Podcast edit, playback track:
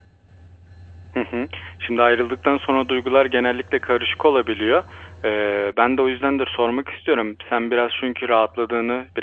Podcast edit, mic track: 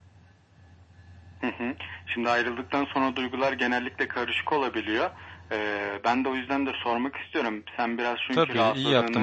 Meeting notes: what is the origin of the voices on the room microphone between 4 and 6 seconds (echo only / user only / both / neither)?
echo only